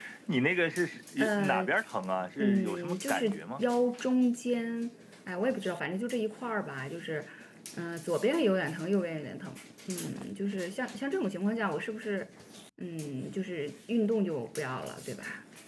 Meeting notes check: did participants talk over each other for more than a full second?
Yes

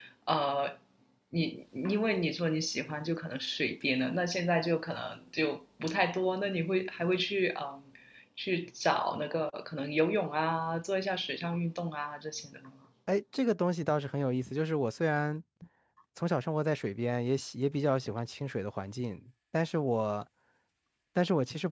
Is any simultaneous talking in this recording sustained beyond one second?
No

